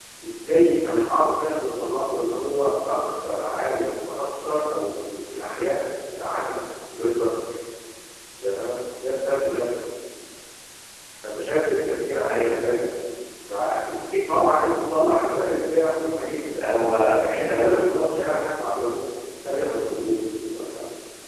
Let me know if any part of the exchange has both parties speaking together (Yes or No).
Yes